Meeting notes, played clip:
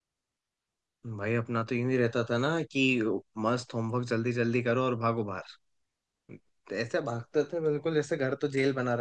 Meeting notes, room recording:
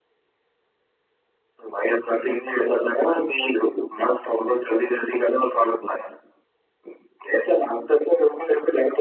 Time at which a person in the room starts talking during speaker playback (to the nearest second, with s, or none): none